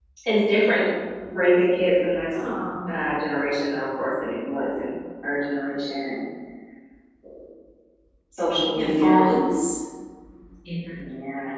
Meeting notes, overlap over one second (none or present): none